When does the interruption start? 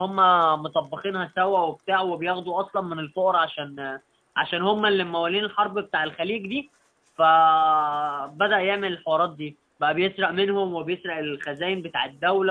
none

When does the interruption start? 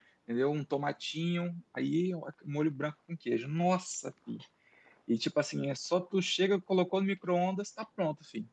none

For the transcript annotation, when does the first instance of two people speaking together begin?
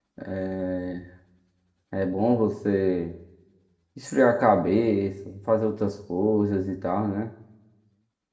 none

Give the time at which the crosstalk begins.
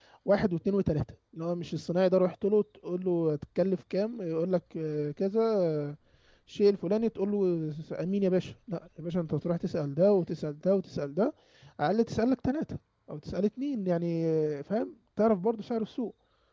none

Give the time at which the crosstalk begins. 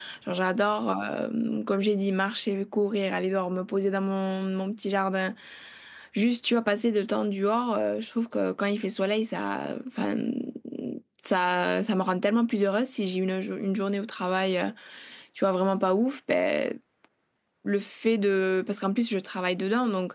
none

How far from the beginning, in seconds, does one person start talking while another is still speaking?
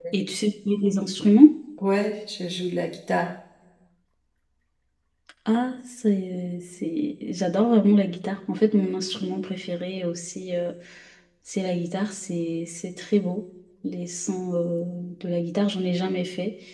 none

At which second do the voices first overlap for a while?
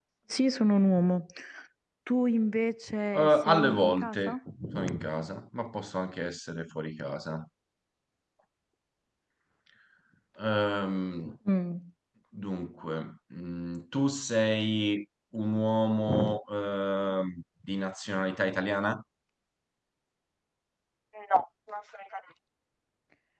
3.1 s

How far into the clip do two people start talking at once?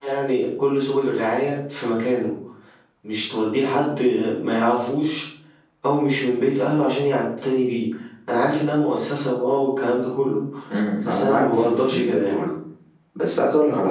11.0 s

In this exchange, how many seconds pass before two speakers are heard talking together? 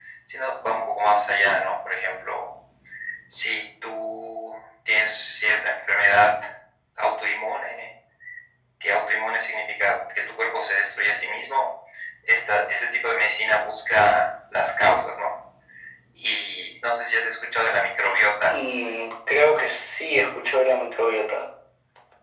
none

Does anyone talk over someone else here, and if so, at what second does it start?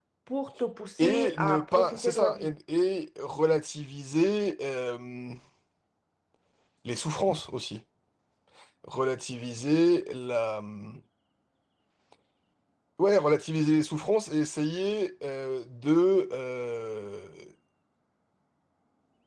1.0 s

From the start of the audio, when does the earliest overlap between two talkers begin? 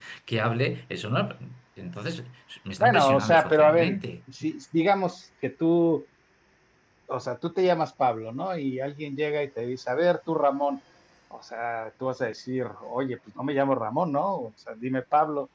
2.8 s

